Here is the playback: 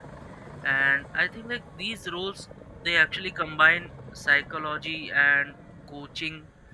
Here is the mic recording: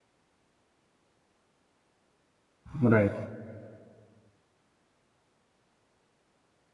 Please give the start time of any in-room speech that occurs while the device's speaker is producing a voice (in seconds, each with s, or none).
2.8 s